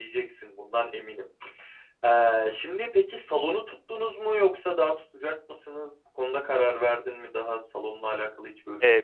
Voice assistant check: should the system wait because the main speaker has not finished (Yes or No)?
No